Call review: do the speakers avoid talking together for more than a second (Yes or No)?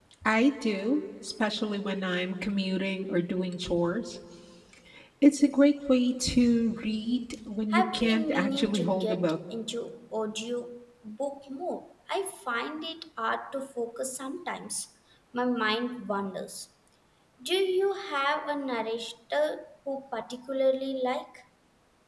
No